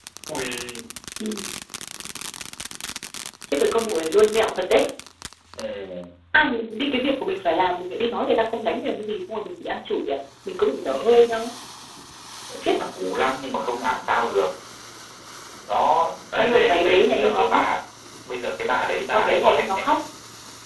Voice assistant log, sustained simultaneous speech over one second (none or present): present